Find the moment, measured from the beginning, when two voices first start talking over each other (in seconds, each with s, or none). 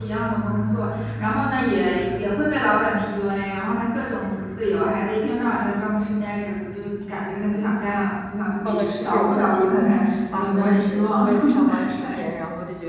8.7 s